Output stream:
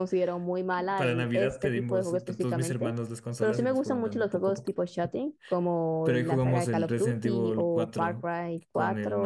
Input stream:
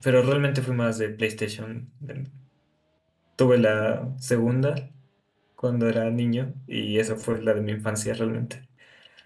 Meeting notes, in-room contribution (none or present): present